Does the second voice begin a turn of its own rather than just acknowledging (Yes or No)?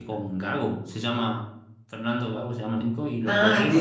Yes